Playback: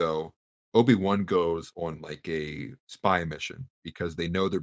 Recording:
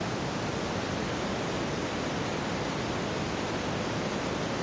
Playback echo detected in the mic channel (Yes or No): No